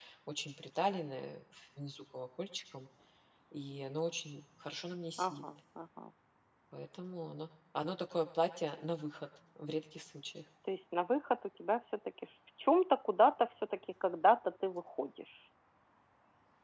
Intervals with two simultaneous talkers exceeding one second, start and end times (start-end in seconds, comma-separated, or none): none